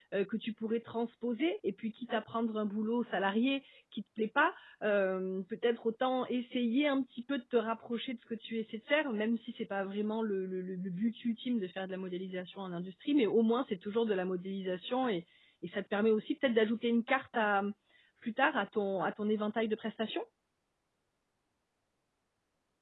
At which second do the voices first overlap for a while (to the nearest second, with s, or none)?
none